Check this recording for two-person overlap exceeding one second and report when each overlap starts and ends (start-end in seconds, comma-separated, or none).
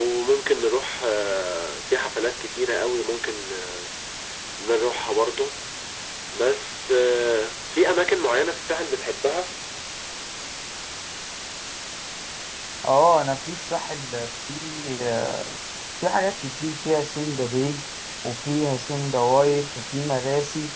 none